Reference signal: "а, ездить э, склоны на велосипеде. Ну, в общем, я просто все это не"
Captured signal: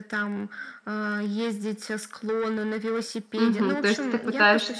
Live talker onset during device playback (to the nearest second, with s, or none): 3 s